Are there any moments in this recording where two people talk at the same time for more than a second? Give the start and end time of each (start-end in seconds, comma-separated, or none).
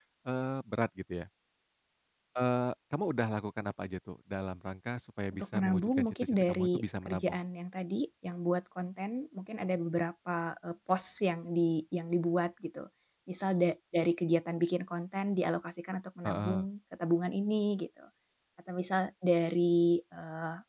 5.3-7.4